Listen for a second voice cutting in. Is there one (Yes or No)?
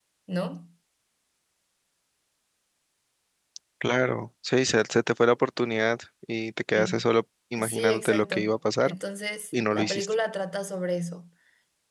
Yes